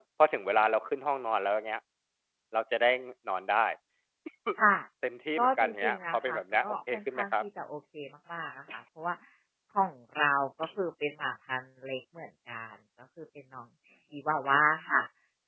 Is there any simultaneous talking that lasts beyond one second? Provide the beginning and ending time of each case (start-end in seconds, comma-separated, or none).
5.4-7.4